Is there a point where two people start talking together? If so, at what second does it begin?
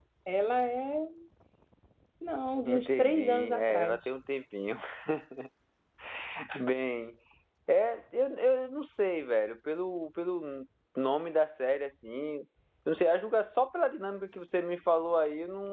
3 s

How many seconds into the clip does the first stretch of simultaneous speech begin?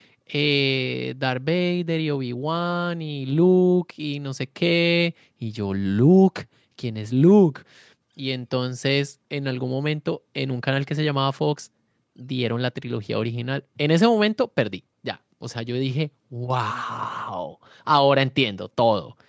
none

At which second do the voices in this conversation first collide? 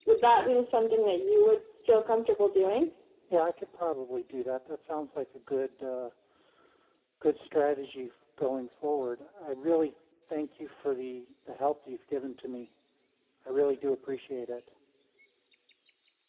none

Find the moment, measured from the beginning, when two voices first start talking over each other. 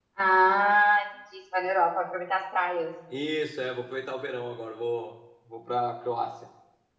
none

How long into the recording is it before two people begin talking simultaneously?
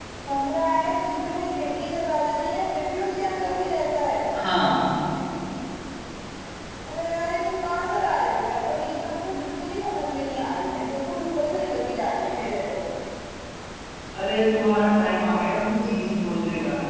none

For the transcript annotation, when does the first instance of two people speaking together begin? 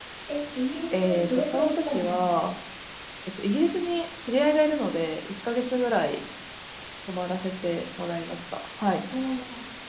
1 s

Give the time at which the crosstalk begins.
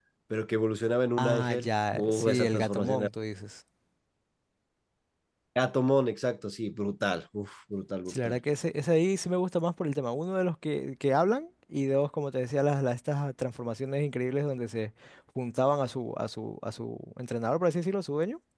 1 s

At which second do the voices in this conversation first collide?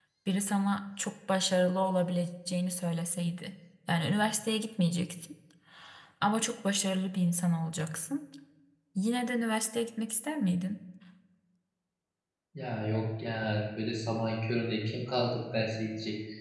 none

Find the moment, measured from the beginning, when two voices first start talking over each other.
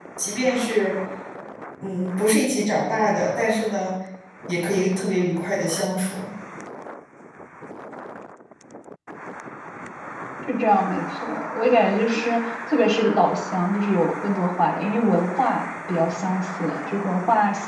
none

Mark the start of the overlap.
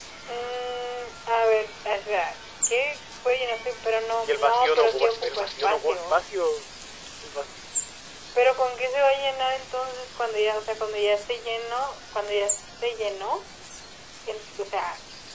4 s

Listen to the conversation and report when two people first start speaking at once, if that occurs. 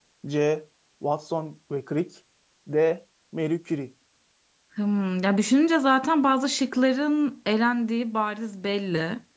none

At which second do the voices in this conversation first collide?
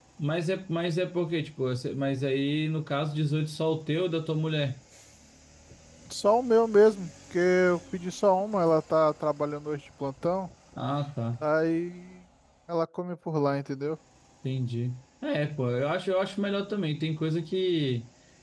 none

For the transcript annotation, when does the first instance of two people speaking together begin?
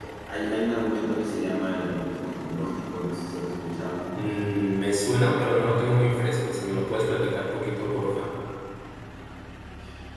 none

